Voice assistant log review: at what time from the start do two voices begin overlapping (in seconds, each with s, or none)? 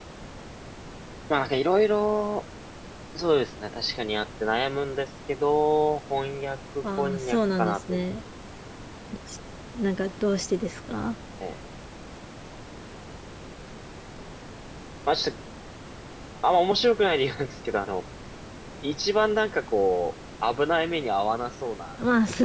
6.8 s